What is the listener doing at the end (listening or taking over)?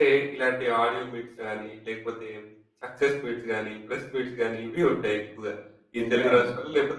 listening